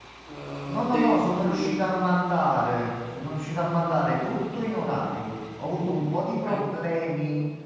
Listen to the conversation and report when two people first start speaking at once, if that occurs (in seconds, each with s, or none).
0.7 s